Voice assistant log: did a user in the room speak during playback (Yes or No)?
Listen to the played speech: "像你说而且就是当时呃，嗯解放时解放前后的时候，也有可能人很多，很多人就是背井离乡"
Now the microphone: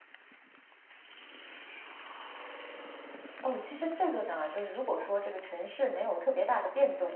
Yes